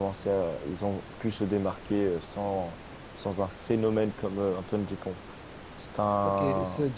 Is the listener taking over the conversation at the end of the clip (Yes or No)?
Yes